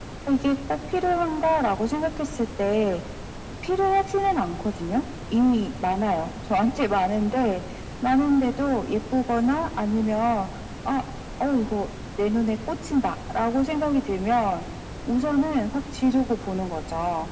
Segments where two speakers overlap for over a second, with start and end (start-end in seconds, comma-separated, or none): none